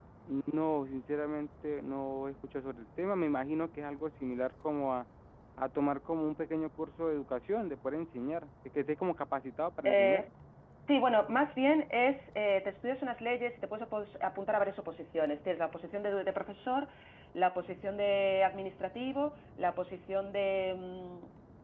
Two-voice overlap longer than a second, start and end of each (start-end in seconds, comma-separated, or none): none